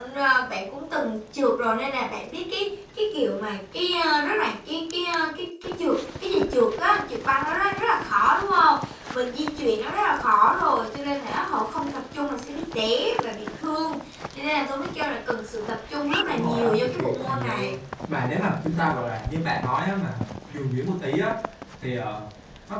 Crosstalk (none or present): present